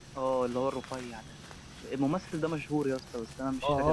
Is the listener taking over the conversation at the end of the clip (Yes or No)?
Yes